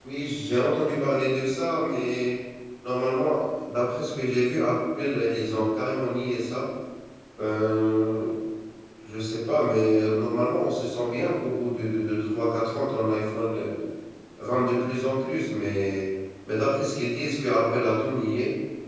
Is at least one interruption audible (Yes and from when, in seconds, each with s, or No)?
No